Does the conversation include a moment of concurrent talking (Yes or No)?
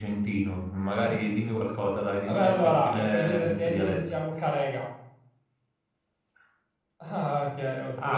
Yes